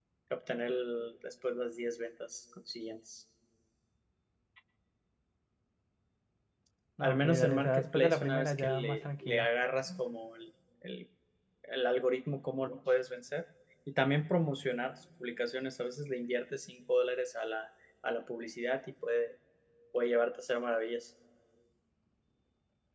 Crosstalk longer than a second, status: present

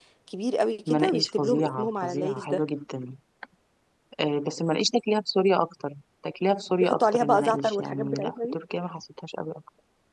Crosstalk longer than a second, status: present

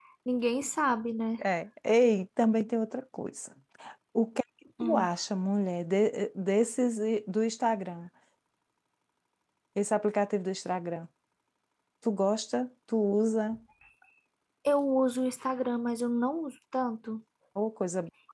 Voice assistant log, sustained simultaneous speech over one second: none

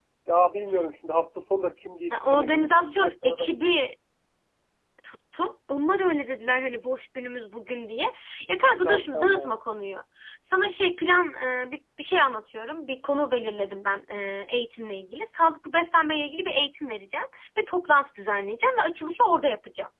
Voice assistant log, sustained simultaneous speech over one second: present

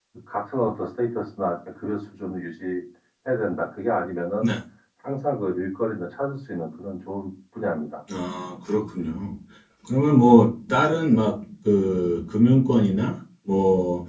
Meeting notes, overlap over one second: none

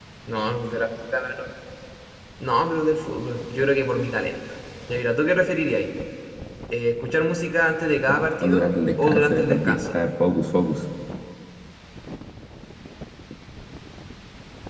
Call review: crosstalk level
present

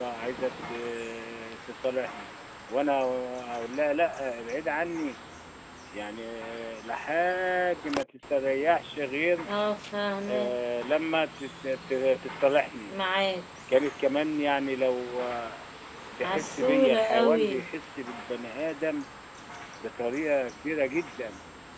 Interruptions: present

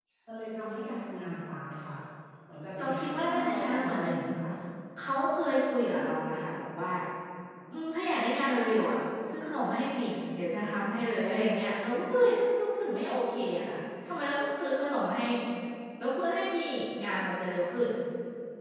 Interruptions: present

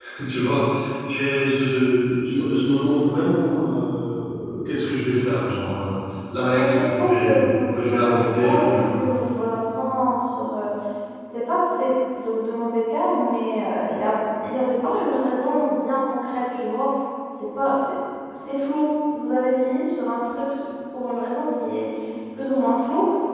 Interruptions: present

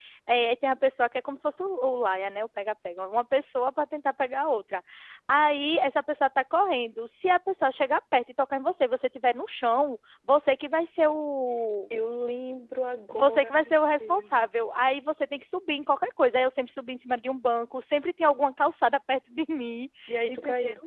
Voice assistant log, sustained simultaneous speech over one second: present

